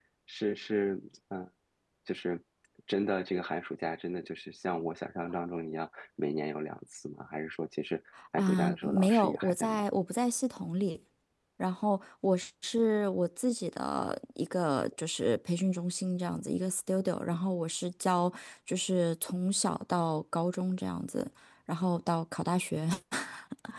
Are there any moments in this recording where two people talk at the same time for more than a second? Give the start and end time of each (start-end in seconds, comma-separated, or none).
8.4-9.8